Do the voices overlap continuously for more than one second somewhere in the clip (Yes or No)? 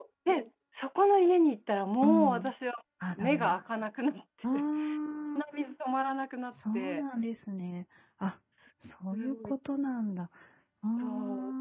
No